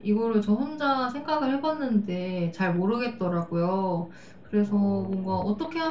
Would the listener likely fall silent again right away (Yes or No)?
Yes